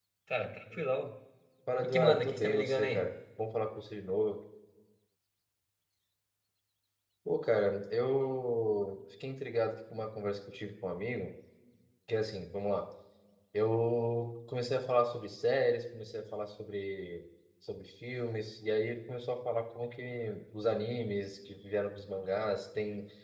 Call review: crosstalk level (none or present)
present